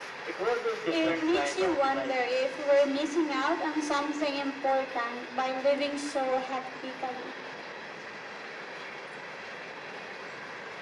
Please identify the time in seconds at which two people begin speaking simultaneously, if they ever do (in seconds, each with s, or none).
0.9 s